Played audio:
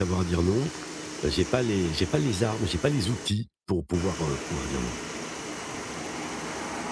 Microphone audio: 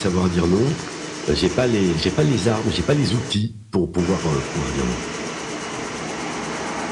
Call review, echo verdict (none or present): present